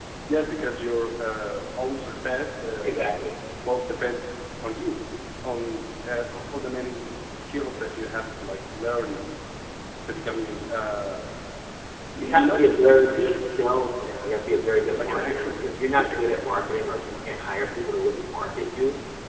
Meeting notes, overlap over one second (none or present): present